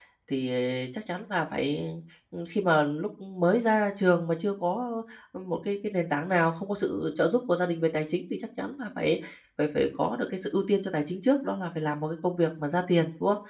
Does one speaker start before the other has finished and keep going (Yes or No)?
No